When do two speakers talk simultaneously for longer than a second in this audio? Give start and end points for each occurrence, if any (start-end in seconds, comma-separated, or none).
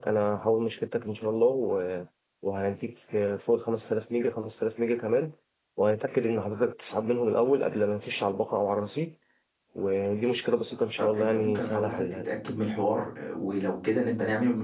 11.0-12.3